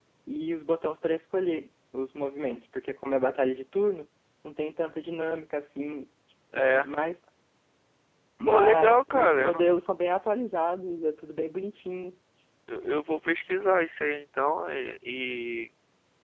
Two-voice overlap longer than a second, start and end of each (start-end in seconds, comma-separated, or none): 8.4-9.7